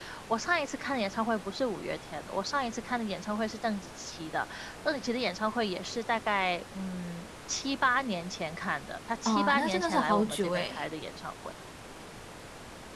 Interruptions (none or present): present